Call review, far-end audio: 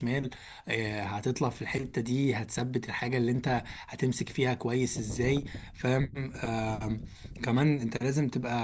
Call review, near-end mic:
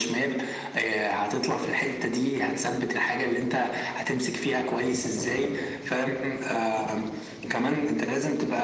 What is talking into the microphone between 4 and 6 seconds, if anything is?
echo only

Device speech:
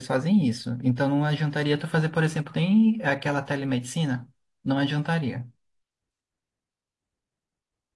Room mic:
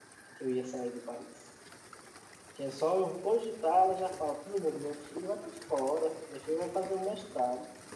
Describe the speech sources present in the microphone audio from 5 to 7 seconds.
user only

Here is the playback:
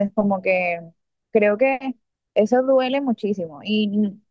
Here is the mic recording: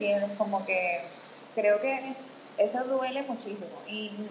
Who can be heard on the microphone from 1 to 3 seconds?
echo only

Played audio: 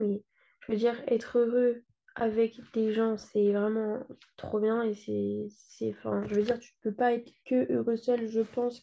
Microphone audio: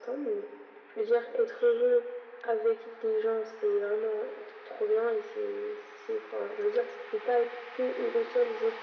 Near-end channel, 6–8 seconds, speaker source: echo only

